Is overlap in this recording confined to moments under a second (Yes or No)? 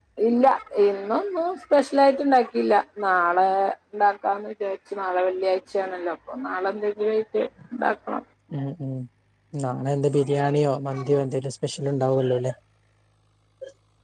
Yes